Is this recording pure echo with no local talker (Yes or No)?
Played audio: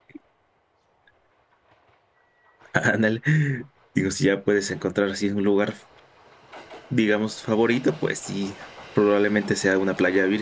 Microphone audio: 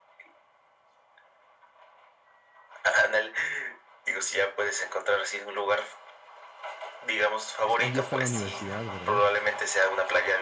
No